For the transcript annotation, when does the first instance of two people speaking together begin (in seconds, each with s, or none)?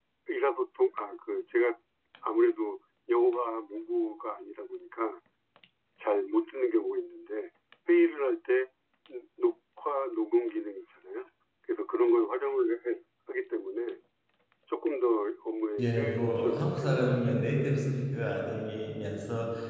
15.8 s